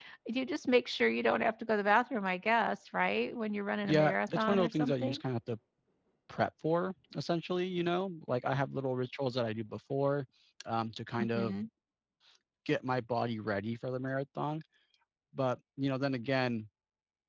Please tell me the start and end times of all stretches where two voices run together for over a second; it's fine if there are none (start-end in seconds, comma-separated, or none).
3.8-5.2